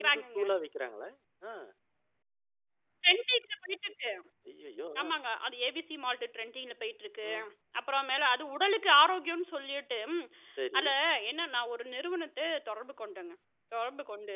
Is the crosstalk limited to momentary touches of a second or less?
Yes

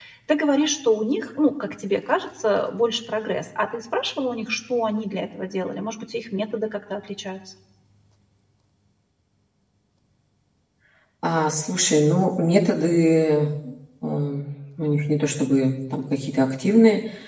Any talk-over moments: No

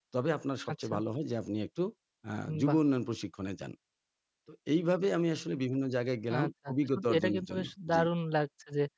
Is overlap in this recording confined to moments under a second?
No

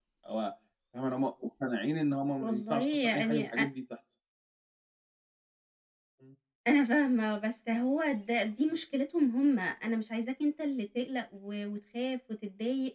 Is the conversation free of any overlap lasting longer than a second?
No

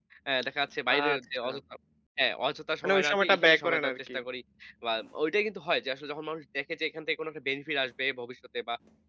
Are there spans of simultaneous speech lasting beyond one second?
Yes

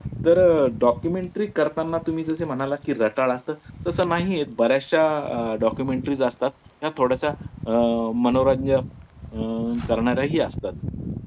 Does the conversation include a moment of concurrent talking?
No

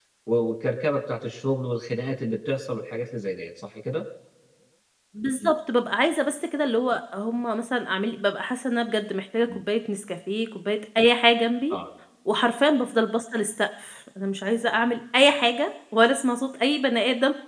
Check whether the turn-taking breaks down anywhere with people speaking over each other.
No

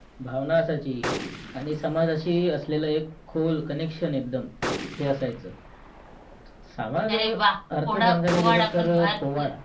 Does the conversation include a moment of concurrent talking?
Yes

